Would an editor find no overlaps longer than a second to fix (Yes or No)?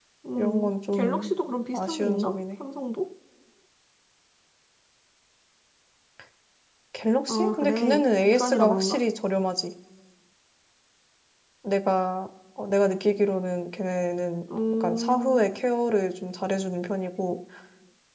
No